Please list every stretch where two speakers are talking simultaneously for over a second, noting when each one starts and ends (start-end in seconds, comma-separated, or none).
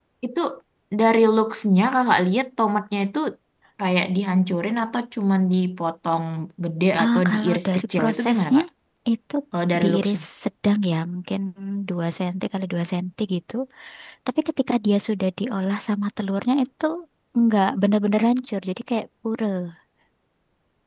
7.0-8.6